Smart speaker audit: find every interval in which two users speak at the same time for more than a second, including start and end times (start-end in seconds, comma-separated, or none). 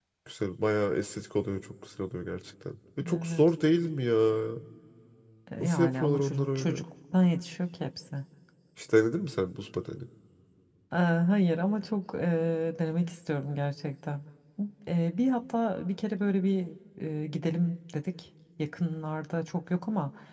5.6-6.8